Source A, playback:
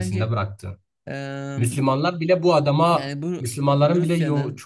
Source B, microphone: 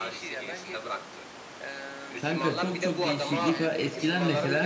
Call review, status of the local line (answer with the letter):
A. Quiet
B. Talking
B